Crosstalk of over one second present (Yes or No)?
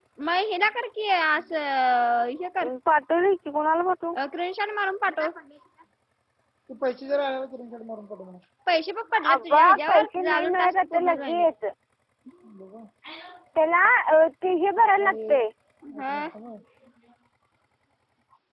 Yes